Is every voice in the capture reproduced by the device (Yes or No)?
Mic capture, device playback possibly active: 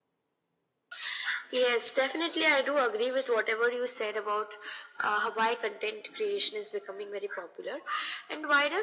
Yes